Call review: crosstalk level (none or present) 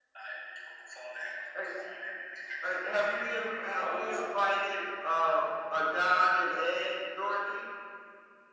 present